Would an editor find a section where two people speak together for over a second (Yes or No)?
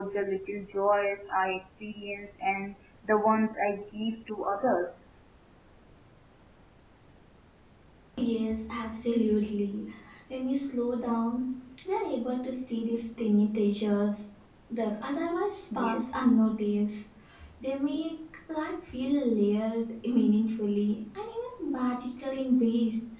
No